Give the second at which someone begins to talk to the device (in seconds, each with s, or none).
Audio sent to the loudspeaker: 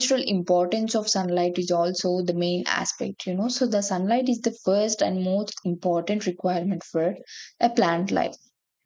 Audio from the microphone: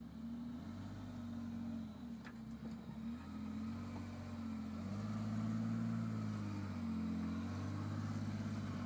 none